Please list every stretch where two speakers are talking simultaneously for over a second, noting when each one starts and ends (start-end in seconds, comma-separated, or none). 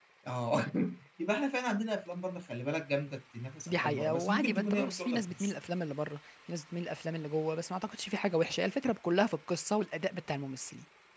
3.7-5.5